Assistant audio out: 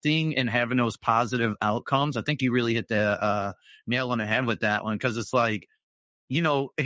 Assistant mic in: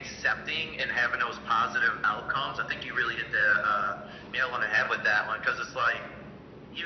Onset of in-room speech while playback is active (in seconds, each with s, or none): none